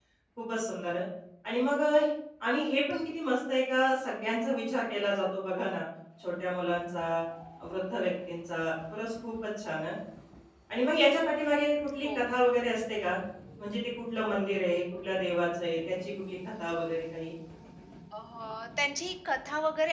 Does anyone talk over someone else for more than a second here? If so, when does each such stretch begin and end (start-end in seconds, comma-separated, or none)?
none